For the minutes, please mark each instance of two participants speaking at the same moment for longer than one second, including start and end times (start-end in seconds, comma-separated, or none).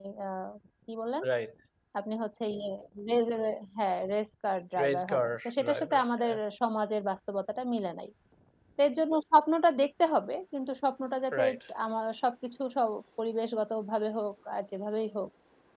4.8-6.4